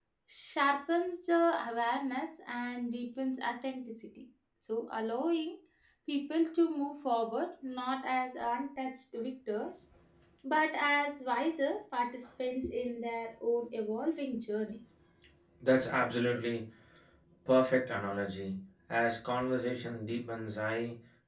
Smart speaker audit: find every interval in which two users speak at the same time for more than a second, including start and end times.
none

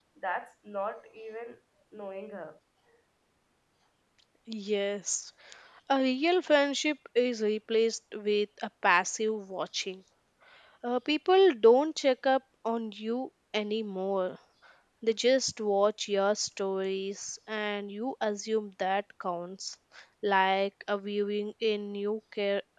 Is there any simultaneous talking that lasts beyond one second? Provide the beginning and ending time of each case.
none

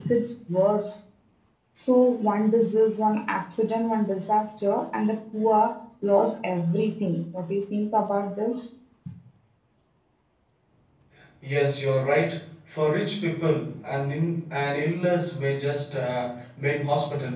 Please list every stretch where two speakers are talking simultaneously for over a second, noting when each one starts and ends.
none

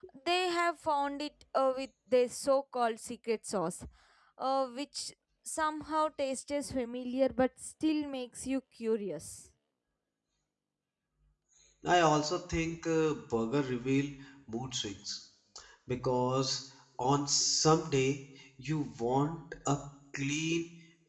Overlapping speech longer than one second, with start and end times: none

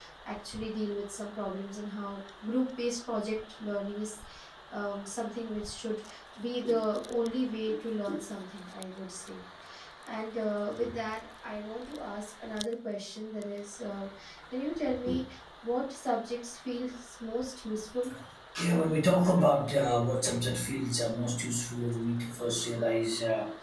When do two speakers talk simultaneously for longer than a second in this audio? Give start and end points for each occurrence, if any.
none

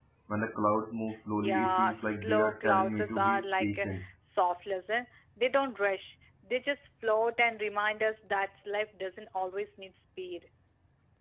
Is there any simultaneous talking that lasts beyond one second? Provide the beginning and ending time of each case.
1.4-3.9

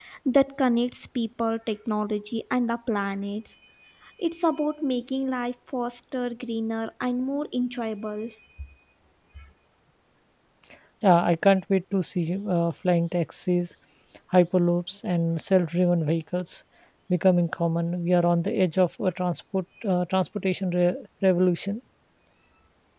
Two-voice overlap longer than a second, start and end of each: none

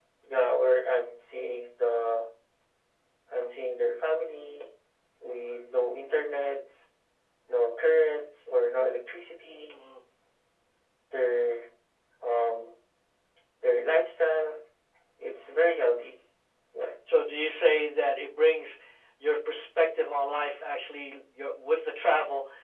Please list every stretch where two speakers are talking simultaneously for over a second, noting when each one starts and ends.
none

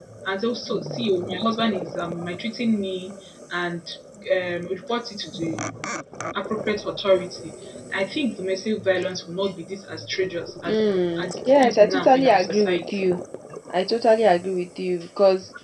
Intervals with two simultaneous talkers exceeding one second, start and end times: 10.7-13.1

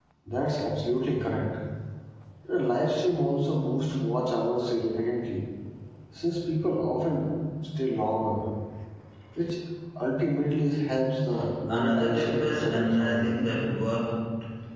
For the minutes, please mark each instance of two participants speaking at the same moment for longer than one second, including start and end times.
11.7-13.3

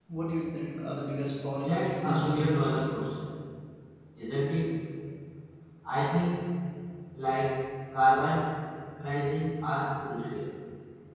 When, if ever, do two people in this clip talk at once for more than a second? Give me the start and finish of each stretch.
1.6-2.9

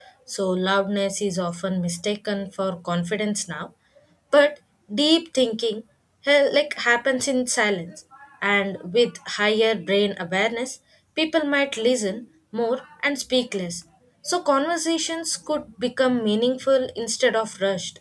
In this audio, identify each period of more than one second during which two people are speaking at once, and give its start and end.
none

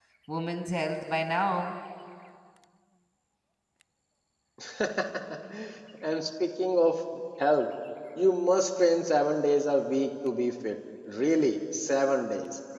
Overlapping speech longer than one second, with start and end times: none

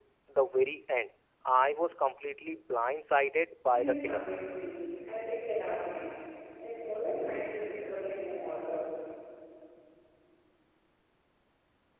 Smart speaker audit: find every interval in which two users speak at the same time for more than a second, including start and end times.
none

